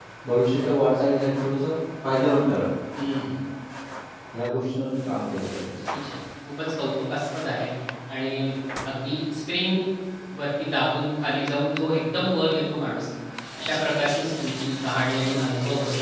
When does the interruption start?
none

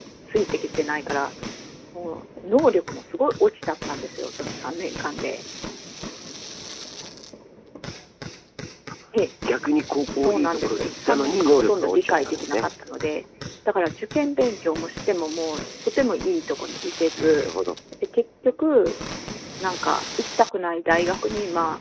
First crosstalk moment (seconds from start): 10.2 s

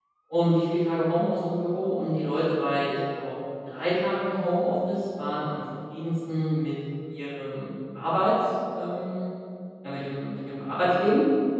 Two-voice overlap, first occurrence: none

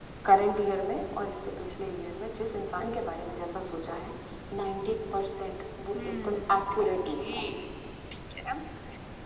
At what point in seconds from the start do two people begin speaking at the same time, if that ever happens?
5.9 s

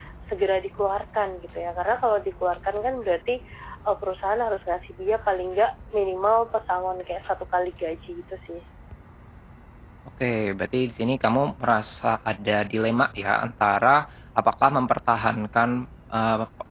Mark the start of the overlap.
none

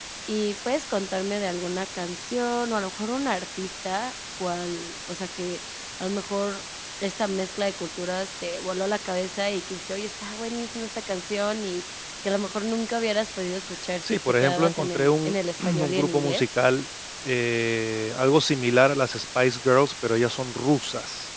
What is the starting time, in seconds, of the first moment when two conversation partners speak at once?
14.0 s

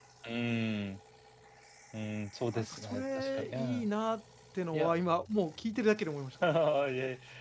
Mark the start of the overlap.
2.5 s

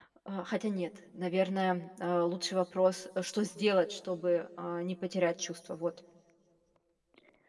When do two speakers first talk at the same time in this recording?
none

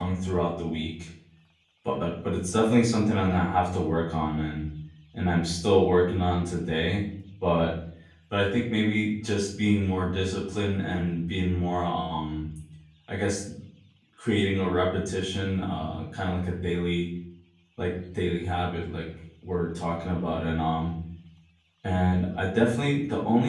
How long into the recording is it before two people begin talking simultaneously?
none

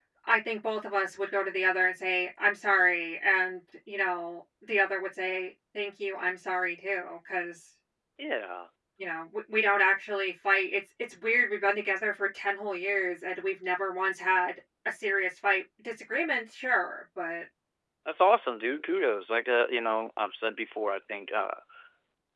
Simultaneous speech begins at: none

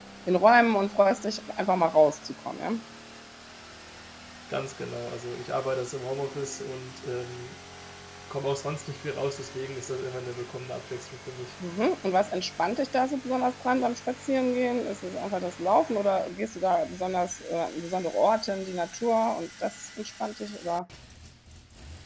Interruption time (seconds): none

